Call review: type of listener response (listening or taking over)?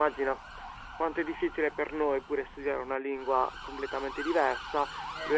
listening